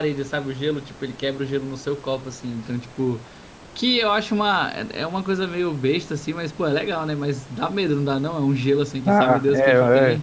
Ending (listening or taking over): taking over